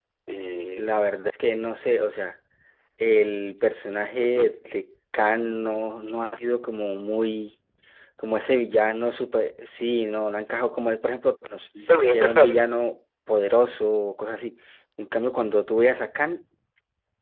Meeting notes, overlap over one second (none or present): none